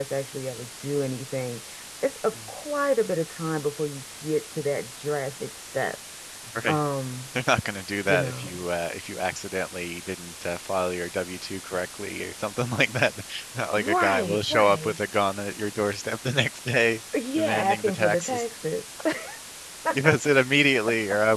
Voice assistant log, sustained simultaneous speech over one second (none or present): present